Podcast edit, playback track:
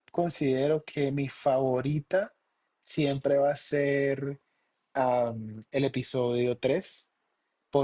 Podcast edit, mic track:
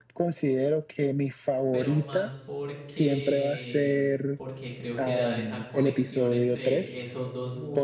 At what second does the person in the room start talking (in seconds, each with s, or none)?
1.7 s